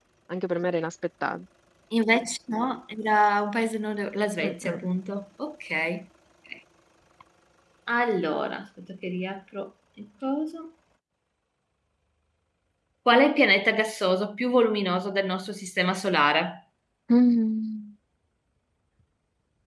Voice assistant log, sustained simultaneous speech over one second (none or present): none